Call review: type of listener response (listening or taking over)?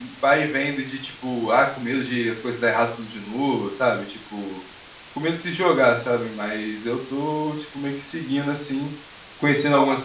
listening